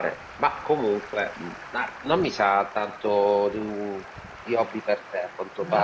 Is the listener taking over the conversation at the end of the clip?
No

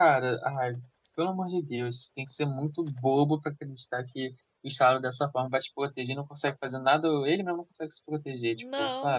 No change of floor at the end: No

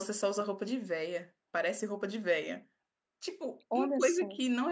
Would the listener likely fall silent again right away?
Yes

